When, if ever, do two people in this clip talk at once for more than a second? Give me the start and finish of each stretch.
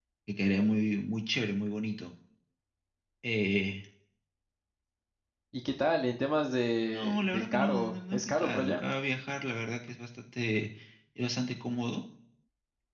6.9-8.8

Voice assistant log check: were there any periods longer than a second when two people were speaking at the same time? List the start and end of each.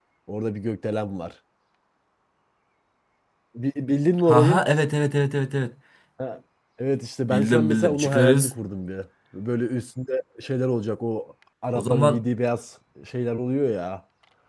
7.3-8.6

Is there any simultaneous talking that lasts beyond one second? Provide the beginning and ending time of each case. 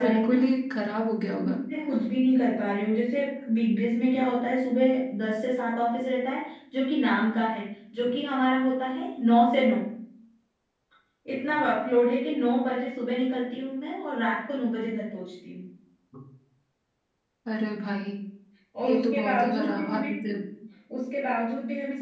18.8-20.1

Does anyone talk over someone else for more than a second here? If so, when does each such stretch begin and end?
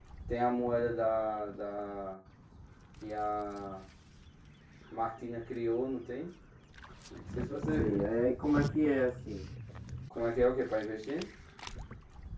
none

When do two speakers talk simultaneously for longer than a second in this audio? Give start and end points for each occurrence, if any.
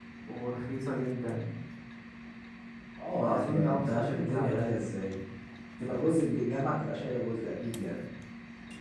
3.2-4.8

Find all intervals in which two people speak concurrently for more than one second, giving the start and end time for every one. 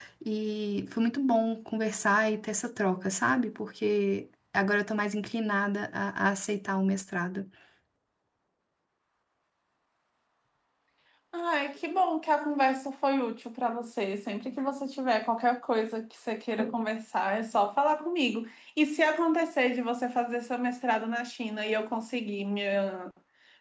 none

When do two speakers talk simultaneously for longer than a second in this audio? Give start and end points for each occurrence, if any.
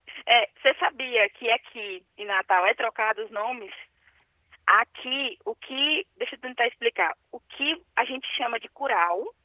none

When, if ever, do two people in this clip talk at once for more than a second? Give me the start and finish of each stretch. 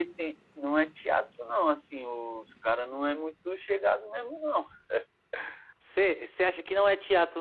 none

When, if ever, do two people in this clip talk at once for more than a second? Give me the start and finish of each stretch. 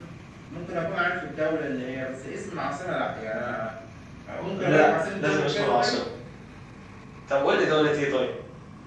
4.6-6.0

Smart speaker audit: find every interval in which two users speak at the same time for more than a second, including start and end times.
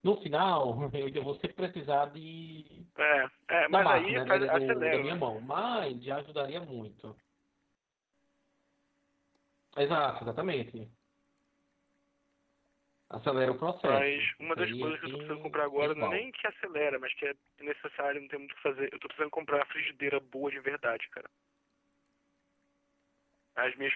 3.7-5.2, 13.8-16.2

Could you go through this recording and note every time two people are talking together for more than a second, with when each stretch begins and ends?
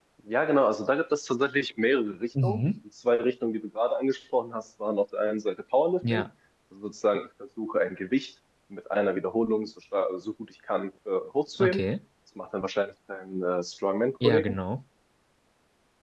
none

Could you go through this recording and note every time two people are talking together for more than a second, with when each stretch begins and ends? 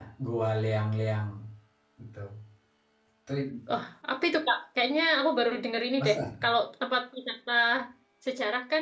none

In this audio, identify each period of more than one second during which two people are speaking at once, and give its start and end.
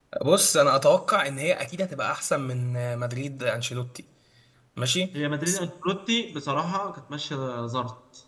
none

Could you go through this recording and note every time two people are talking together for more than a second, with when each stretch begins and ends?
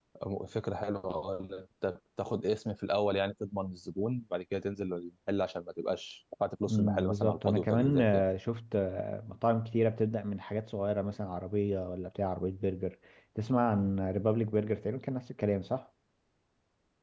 6.7-8.2

